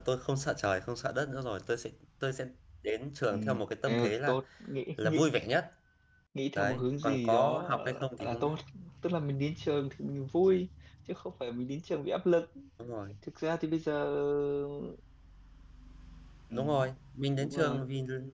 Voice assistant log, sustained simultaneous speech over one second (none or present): present